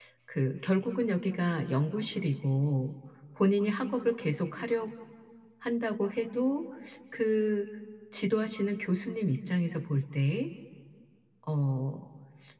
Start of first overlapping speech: none

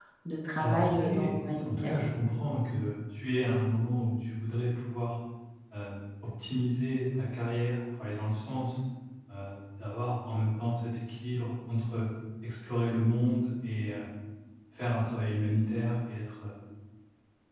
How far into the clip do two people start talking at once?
1 s

